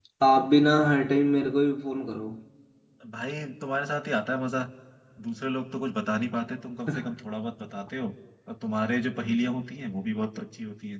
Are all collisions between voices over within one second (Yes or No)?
Yes